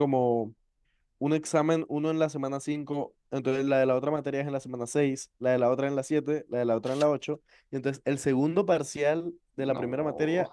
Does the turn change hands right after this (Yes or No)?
No